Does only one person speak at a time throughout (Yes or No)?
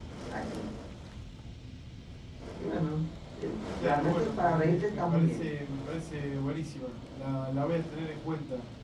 No